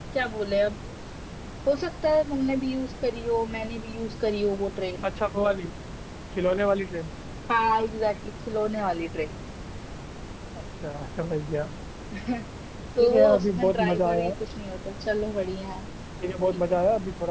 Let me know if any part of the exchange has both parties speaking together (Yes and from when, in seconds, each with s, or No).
Yes, from 13.0 s